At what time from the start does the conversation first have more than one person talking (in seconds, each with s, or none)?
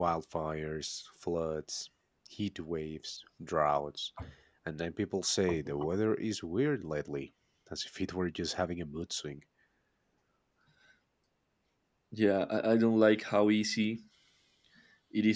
none